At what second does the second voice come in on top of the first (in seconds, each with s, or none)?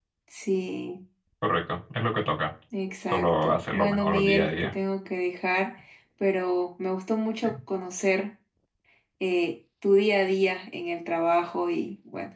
3.1 s